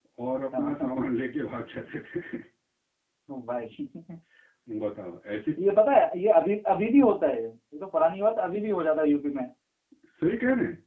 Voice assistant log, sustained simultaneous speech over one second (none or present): none